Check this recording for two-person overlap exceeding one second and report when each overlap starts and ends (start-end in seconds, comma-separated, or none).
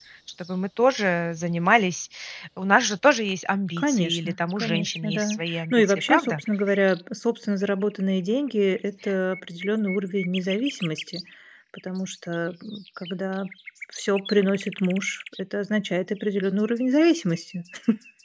3.8-6.4